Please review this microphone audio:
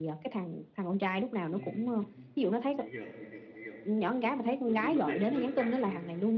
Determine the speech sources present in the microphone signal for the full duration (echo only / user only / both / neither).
both